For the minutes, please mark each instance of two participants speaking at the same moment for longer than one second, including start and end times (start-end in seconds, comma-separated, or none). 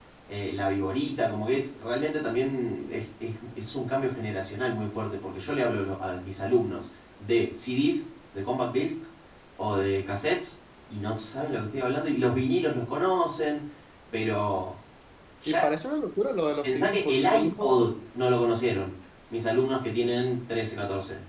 16.6-17.9